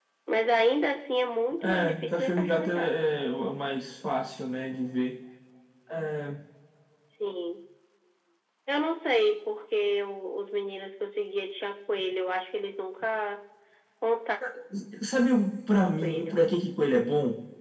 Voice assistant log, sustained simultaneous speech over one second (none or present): present